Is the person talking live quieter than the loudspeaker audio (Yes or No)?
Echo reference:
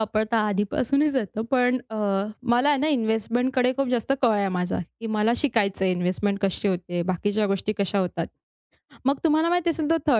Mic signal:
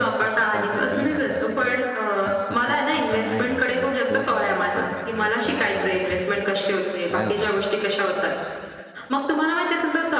Yes